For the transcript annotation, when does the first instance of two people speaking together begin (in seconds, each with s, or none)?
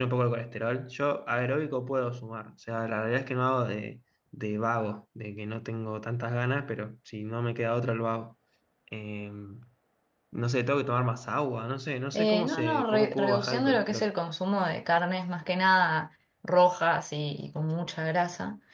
12.1 s